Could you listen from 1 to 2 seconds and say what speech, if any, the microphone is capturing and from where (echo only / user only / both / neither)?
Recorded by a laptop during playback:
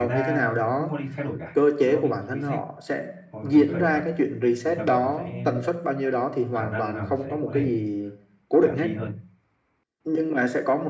both